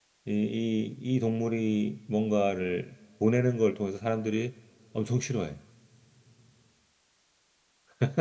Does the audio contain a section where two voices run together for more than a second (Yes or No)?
No